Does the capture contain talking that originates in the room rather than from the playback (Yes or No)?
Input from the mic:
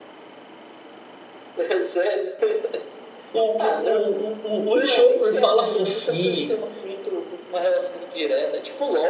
Yes